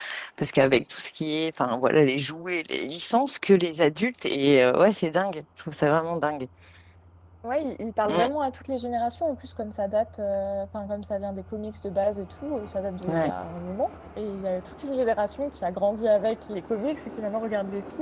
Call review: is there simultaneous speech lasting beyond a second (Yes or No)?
No